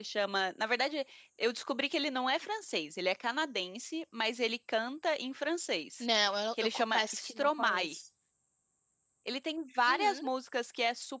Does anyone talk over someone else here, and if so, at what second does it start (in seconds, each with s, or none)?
6.6 s